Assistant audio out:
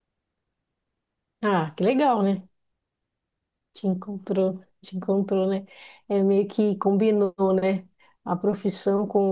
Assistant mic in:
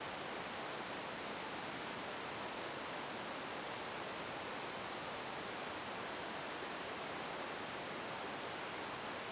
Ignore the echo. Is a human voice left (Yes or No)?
No